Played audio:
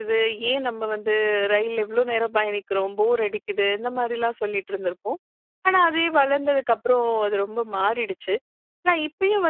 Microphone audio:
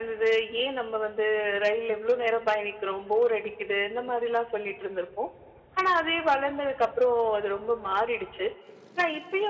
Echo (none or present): present